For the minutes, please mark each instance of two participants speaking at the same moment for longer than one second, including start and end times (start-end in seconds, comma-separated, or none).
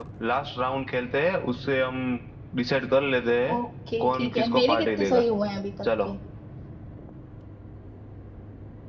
4.0-5.2